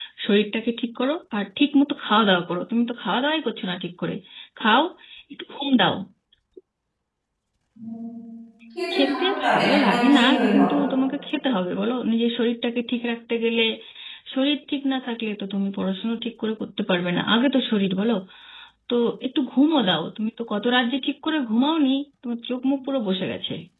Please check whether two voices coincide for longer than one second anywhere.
Yes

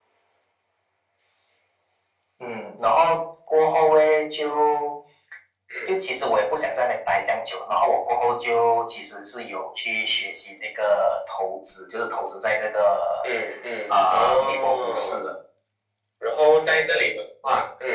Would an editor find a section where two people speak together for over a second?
Yes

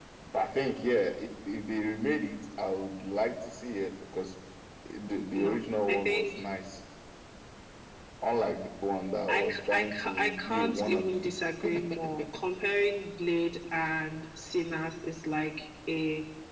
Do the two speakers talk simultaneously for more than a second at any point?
Yes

